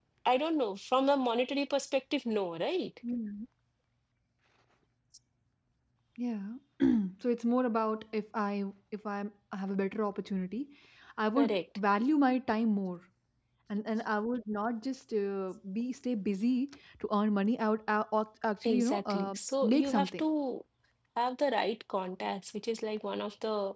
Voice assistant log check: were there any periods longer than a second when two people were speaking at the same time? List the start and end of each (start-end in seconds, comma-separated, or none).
18.6-20.2